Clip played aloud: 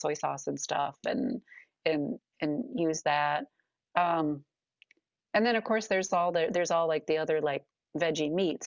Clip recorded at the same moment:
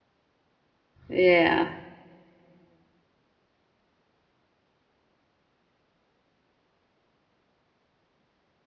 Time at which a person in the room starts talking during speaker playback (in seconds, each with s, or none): 1.1 s